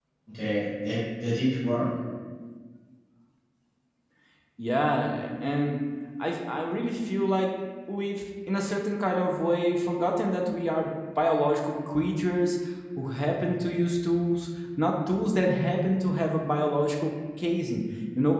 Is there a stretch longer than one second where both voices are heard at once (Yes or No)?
No